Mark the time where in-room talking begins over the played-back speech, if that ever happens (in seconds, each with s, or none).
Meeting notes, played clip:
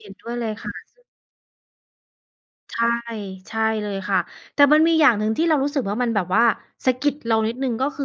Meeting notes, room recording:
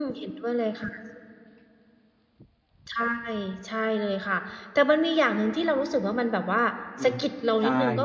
7.0 s